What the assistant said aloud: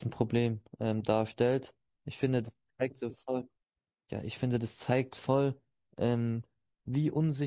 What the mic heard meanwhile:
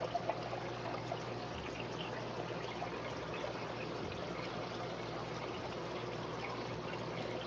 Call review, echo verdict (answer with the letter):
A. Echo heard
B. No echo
B